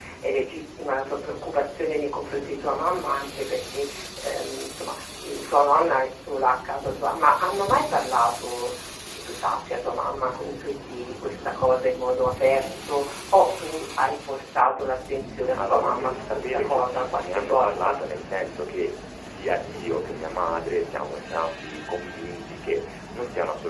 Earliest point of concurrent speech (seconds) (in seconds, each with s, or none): 15.6 s